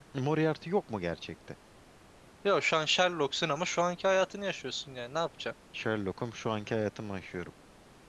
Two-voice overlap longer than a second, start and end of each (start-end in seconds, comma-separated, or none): none